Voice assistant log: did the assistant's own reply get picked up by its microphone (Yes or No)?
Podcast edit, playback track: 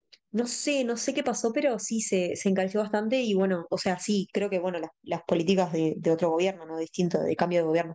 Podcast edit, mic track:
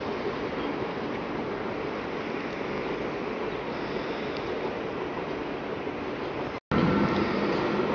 No